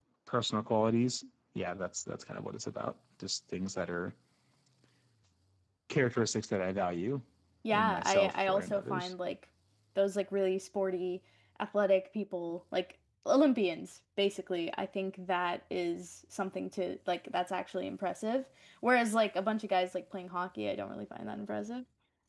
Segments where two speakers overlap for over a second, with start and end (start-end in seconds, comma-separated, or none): 7.7-9.1